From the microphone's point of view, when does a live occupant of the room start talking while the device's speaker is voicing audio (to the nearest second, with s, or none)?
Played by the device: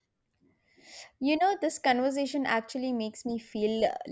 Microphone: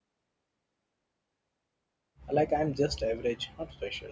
2 s